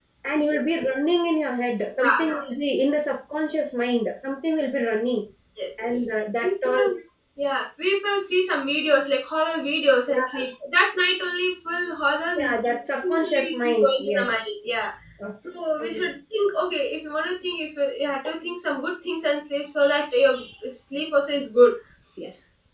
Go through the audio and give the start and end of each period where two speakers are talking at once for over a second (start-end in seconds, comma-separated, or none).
13.0-14.3